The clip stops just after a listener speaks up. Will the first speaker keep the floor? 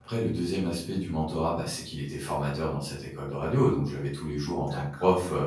Yes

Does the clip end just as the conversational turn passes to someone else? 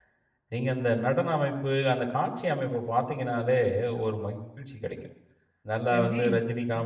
No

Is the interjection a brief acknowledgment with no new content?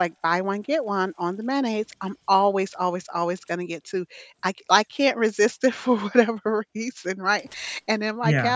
Yes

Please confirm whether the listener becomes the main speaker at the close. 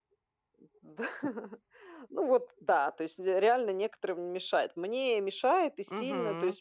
No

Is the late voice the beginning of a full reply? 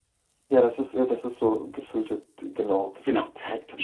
Yes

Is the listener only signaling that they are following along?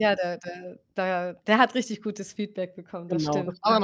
No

